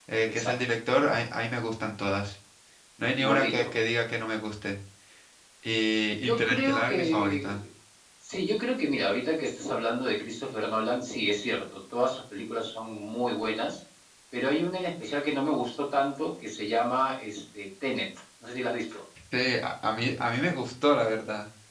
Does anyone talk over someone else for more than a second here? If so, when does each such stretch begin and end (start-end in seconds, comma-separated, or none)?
6.2-7.6